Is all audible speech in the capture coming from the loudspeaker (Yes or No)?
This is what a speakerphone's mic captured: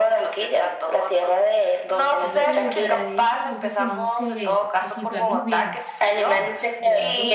No